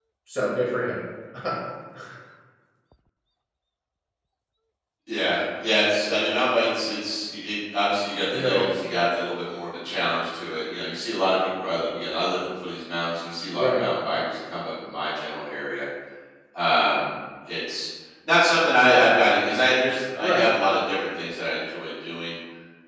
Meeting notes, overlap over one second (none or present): none